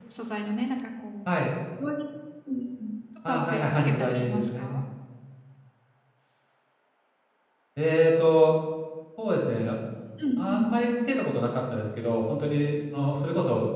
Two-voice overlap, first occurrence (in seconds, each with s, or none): 3.3 s